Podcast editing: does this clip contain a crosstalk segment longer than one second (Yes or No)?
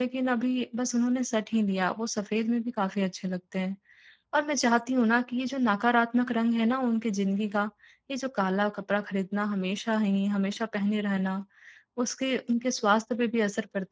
No